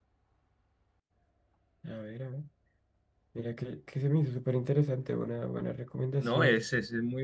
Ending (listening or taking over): taking over